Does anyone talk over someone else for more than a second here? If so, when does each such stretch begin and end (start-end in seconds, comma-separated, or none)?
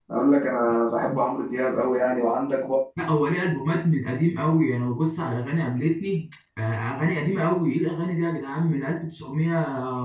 none